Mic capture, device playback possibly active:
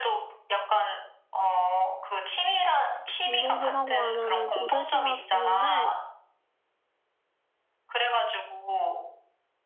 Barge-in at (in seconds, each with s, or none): 3.2 s